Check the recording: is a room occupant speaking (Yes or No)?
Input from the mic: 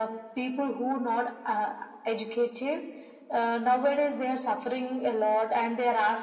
No